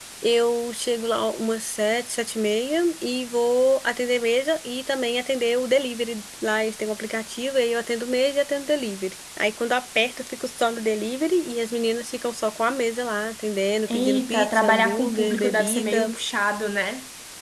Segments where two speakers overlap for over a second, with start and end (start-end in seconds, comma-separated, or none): 13.9-16.1